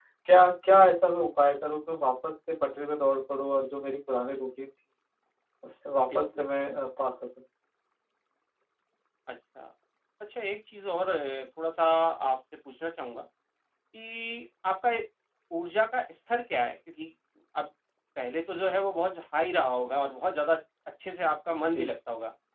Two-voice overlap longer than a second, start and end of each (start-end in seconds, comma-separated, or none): none